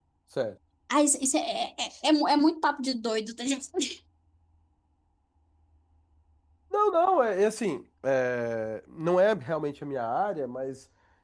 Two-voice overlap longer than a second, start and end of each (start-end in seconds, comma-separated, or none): none